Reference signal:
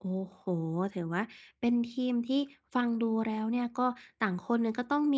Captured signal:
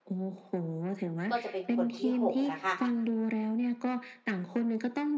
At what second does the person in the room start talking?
1.3 s

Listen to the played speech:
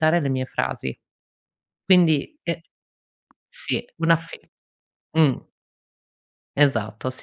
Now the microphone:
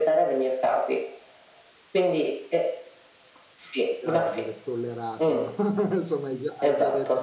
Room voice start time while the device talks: 3.8 s

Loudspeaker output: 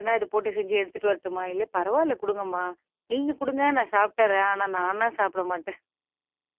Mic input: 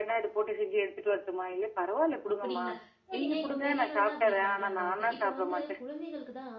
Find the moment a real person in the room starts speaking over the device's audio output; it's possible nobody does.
2.3 s

